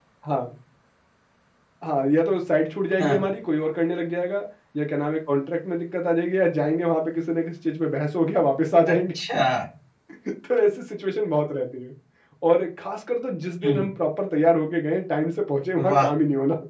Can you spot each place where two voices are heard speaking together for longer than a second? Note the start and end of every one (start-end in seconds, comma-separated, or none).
none